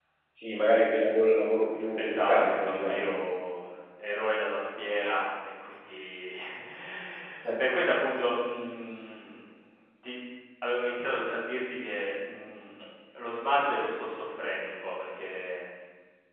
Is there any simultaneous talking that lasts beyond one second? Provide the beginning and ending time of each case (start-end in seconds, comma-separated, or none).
2.0-3.2